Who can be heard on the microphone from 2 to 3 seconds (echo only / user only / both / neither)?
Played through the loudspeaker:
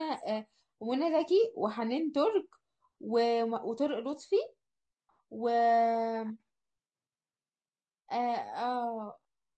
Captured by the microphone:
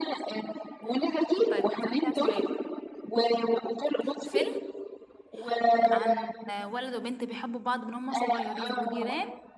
both